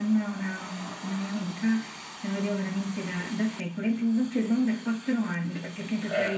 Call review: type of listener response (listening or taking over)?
listening